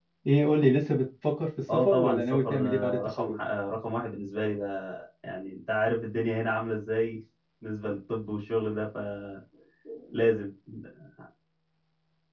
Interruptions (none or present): present